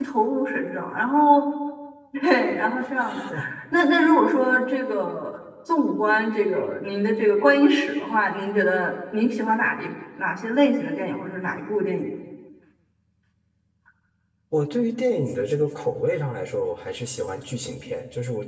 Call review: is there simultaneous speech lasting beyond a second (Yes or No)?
No